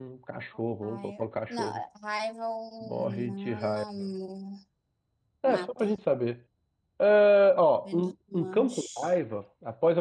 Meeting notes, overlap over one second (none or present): present